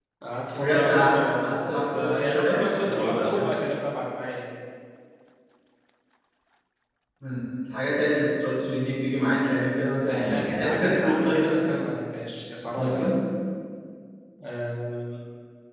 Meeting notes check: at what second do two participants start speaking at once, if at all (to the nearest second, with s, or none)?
1 s